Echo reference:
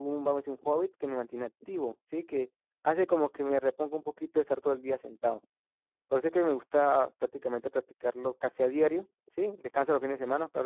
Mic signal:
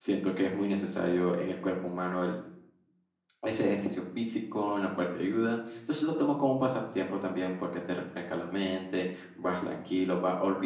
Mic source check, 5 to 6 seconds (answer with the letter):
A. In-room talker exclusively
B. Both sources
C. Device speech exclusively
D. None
A